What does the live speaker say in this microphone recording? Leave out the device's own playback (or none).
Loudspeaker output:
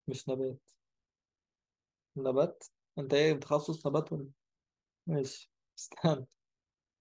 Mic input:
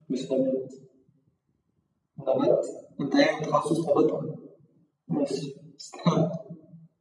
none